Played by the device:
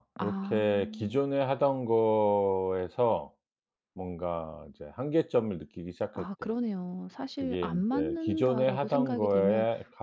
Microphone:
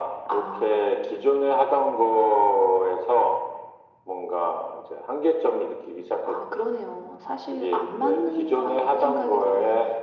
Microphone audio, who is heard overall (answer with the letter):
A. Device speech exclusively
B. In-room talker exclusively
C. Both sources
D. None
A